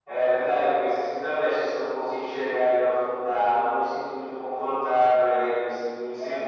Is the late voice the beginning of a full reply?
No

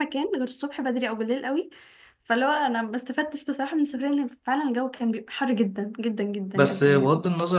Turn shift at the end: Yes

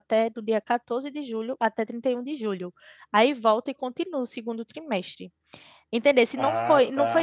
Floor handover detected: No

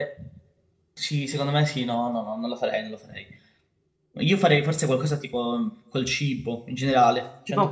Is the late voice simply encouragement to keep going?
No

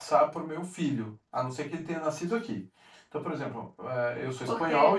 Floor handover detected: Yes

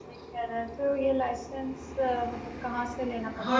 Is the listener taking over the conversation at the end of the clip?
Yes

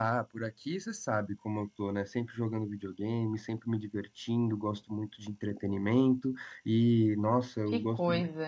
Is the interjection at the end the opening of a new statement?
No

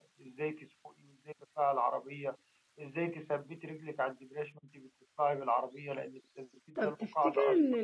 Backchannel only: No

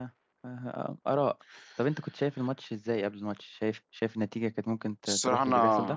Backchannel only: No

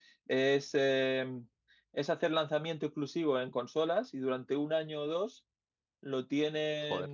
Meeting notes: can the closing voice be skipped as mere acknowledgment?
Yes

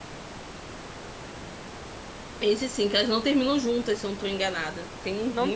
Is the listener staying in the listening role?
No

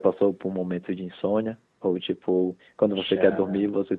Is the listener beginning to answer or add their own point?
No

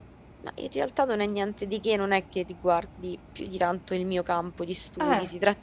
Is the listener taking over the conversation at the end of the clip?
No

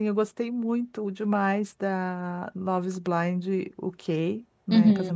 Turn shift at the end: No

